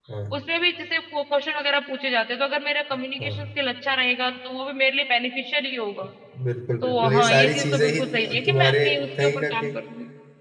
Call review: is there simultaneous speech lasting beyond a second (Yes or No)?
Yes